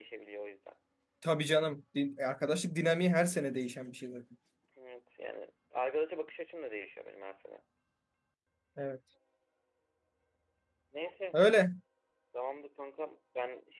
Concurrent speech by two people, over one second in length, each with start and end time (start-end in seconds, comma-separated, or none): none